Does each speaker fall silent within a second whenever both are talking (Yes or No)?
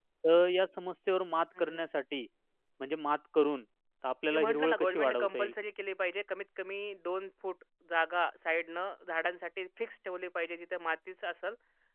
No